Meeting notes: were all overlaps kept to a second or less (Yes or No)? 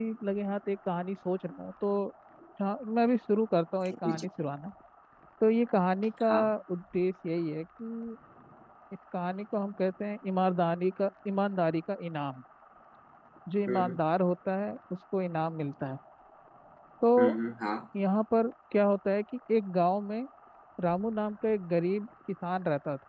Yes